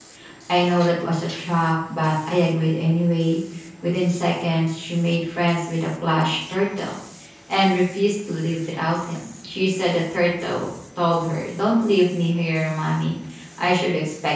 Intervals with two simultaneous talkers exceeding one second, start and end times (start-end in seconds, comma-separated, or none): none